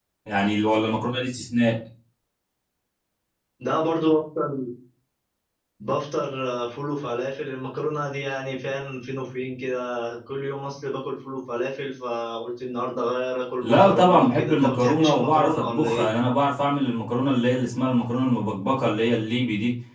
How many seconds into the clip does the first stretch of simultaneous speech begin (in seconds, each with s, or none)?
13.6 s